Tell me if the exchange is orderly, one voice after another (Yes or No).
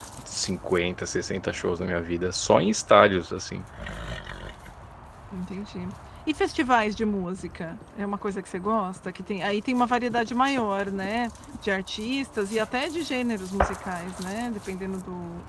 Yes